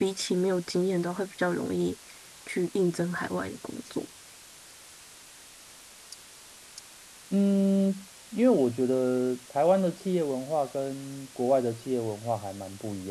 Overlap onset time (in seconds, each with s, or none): none